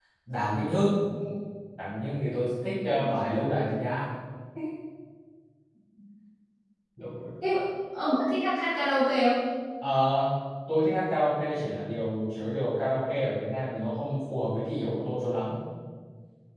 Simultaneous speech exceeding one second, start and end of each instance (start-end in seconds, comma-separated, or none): none